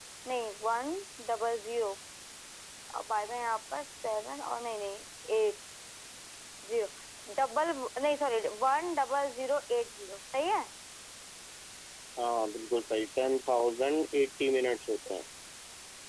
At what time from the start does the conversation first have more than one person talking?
none

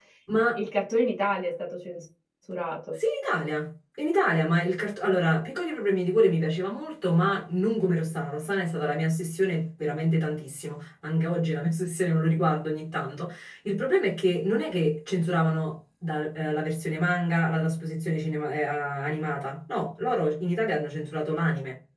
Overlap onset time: none

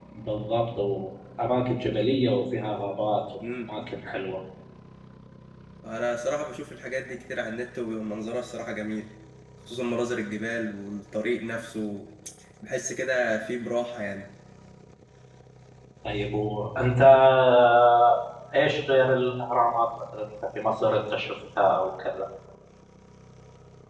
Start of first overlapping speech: none

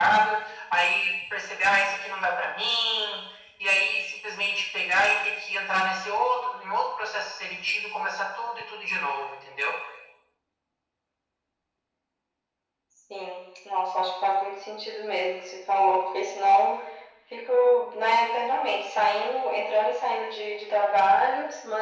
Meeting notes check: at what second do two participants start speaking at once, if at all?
none

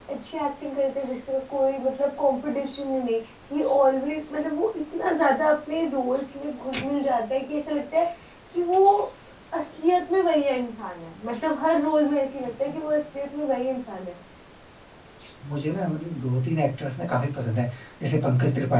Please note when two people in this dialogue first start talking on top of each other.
none

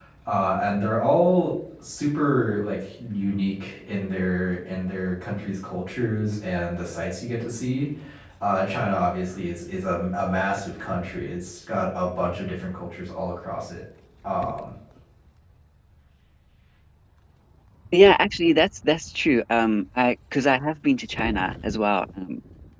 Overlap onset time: none

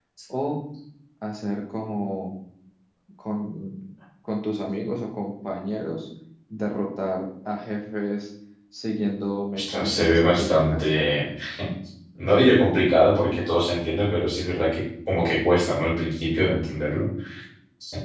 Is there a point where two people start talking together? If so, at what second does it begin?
10 s

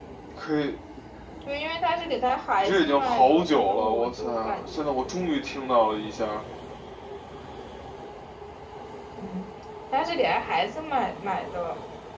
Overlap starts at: 3 s

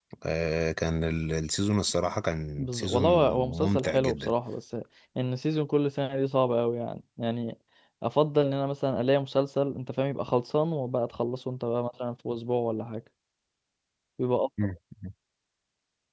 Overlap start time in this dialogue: 3 s

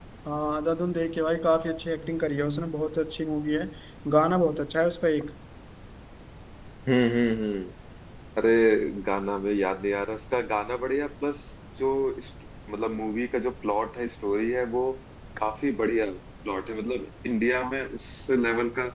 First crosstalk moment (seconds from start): none

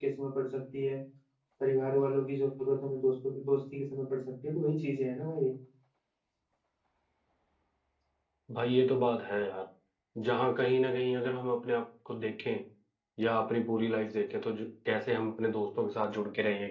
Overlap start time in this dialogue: none

